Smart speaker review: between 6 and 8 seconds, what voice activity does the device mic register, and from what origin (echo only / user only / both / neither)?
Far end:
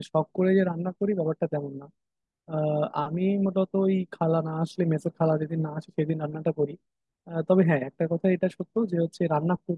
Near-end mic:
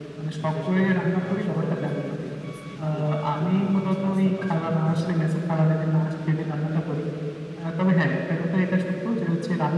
echo only